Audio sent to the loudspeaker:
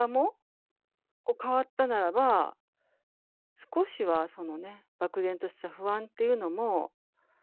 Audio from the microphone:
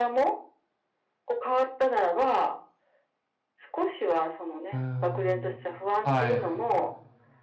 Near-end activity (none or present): present